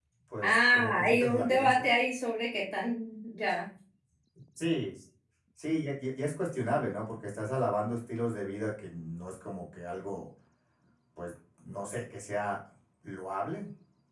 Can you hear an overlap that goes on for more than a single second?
Yes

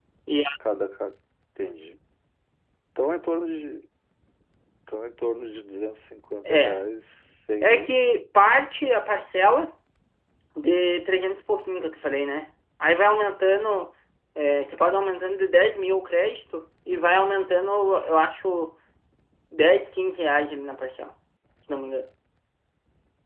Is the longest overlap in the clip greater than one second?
No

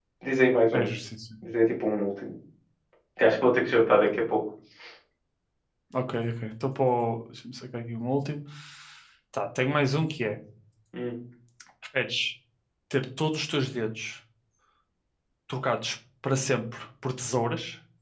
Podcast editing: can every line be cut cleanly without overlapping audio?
Yes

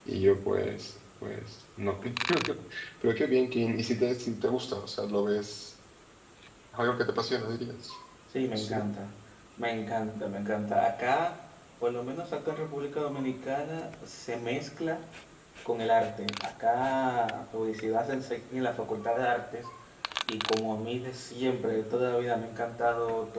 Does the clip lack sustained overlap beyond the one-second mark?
Yes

